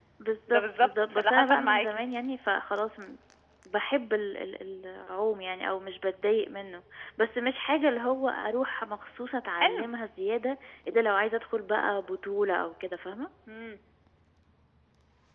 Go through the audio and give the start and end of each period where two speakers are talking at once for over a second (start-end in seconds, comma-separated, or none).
0.5-2.0